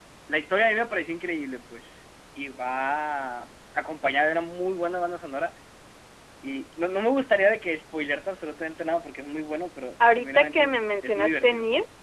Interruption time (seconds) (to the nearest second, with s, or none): 10 s